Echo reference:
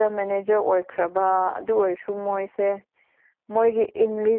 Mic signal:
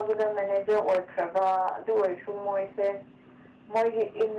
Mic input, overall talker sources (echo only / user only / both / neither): echo only